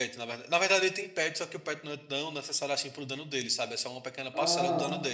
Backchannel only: No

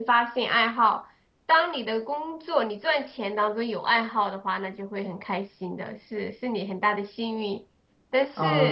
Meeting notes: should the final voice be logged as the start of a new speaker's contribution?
Yes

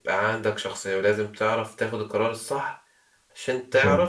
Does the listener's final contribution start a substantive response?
No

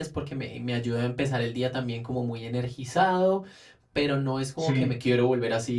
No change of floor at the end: Yes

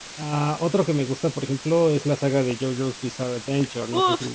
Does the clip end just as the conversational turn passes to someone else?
Yes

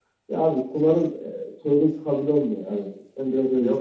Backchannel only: No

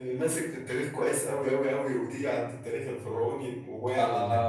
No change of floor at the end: No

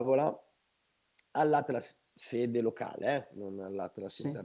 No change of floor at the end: Yes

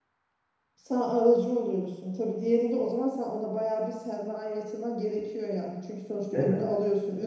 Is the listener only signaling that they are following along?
Yes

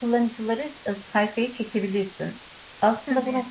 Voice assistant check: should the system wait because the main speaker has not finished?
Yes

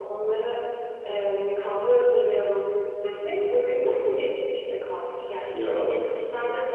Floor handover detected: No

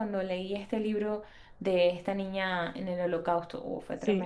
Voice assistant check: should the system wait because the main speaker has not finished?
No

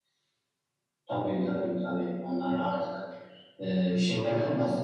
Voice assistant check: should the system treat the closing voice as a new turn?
No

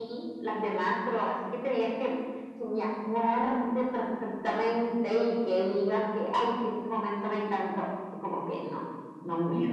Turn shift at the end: Yes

